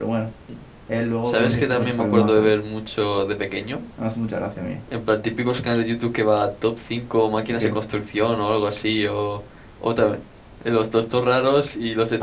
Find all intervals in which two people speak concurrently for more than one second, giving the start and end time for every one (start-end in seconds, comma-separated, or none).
1.2-2.5